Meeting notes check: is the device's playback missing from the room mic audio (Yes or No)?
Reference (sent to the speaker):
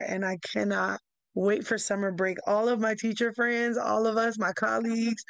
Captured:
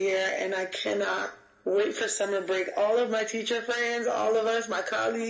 No